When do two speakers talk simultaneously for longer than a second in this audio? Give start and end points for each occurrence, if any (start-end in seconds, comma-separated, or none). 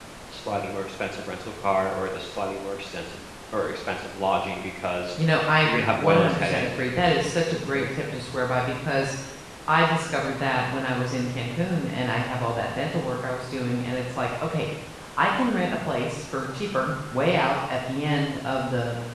5.7-7.9